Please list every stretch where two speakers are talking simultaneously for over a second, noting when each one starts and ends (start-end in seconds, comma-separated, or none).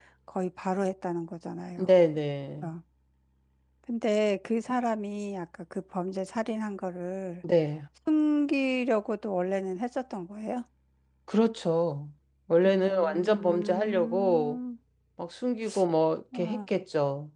12.7-14.6